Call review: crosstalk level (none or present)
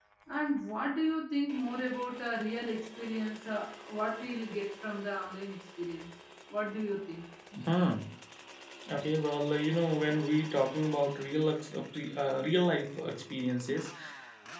none